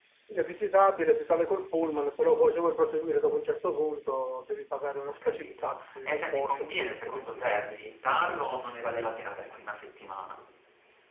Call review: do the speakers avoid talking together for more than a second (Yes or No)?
No